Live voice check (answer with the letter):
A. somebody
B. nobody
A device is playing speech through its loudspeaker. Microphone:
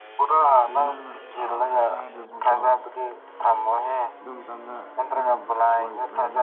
A